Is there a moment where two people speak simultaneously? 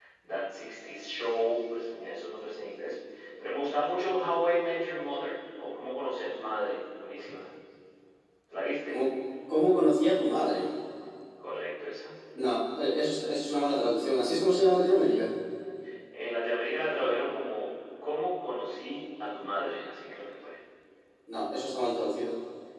No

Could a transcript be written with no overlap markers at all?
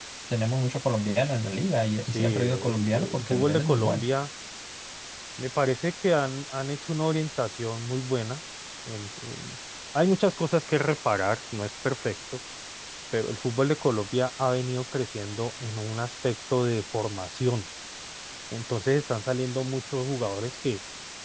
No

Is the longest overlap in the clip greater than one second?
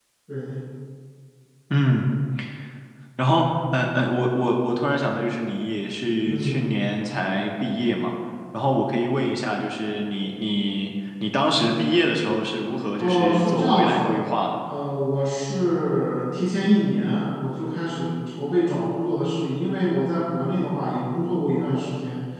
Yes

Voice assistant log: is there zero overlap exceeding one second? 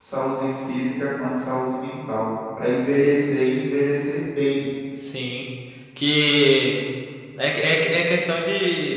Yes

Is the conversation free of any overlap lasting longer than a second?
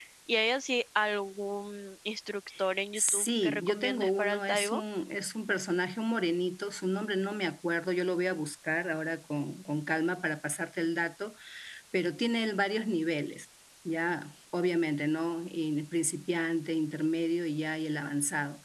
No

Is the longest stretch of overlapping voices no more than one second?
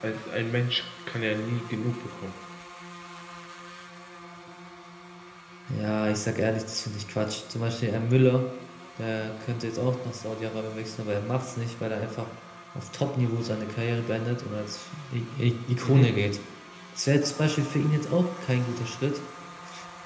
Yes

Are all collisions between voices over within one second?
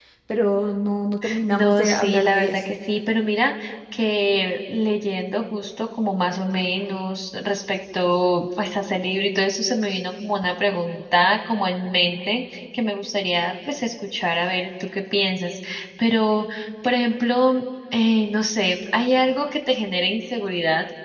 No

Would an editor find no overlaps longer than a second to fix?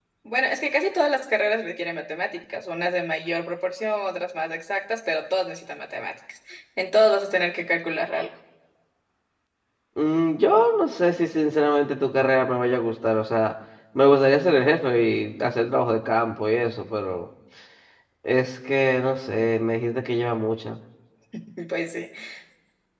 Yes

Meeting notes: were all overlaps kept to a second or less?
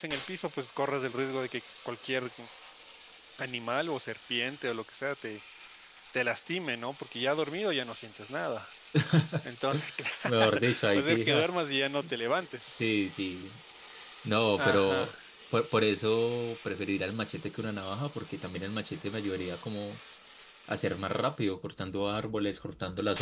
No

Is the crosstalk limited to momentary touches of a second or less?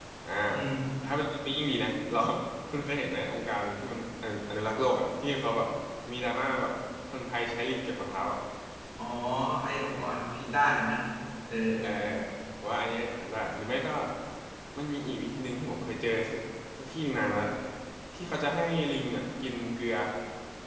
Yes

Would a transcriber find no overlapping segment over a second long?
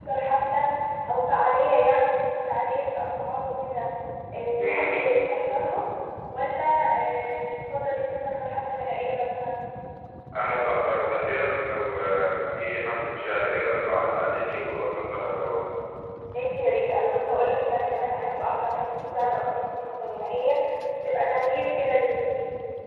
Yes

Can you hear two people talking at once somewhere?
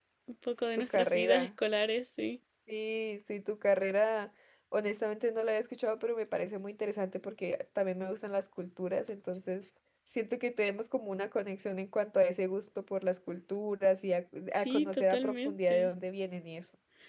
Yes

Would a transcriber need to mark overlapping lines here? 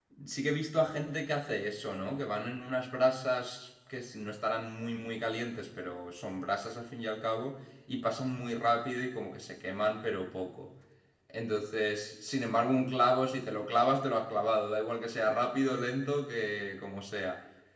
No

